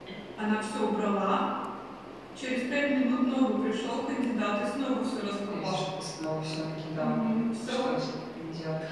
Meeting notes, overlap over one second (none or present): none